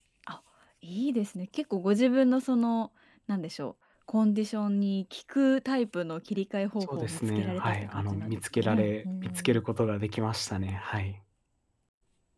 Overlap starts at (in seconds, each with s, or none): 6.8 s